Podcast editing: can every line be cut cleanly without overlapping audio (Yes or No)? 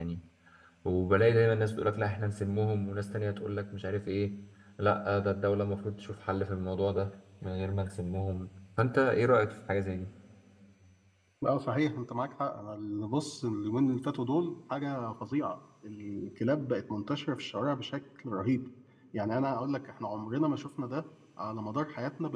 Yes